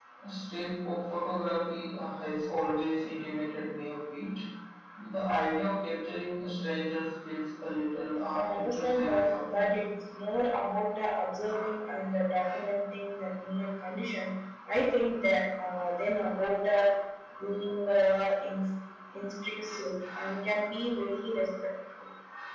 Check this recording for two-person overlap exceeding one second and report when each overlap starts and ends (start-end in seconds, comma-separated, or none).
8.3-9.8